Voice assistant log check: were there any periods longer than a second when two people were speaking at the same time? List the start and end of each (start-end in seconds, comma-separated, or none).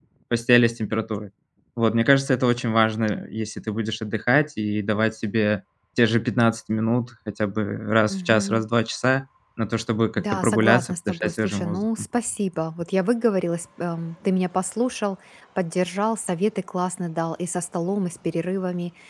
10.2-11.8